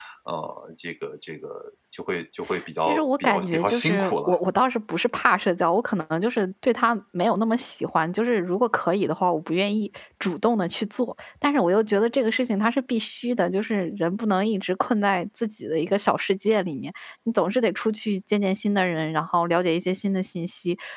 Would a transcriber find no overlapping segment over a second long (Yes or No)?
No